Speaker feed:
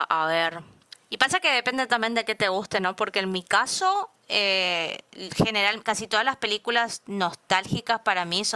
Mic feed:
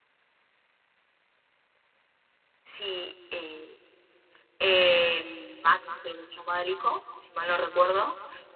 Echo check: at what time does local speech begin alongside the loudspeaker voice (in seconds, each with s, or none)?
2.6 s